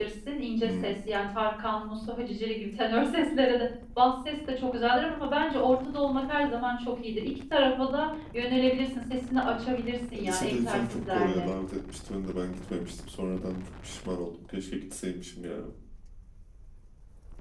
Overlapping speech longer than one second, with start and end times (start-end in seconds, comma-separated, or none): 10.2-11.5